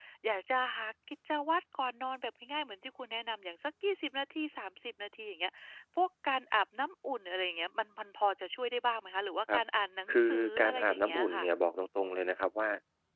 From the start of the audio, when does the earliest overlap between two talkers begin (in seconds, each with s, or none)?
10.1 s